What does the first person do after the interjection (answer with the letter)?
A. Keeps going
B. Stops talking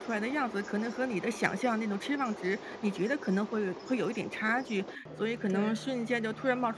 A